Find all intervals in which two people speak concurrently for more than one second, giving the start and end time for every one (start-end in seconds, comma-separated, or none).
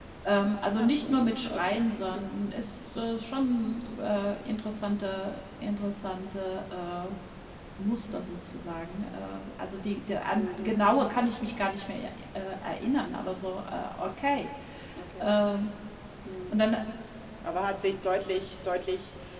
0.7-2.3